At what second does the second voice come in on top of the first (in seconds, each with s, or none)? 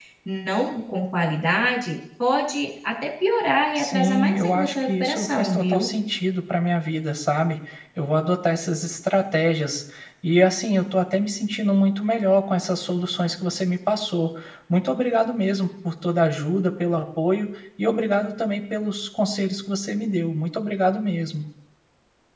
3.8 s